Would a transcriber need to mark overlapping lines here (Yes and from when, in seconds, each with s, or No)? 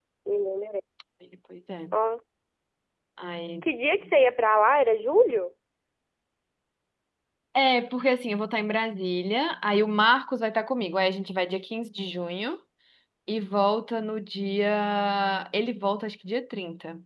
No